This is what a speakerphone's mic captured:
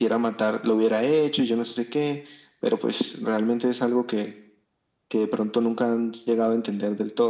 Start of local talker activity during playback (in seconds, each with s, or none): none